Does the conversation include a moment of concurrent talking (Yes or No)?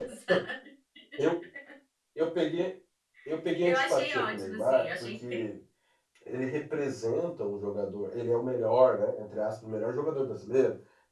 Yes